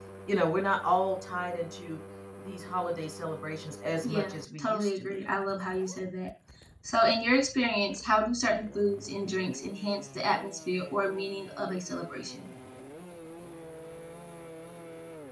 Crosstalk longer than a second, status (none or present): present